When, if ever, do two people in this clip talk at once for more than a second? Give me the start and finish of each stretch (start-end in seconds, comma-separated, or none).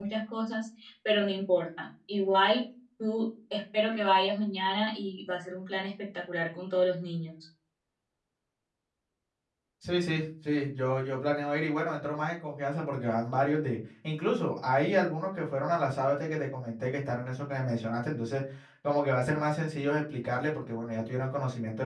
none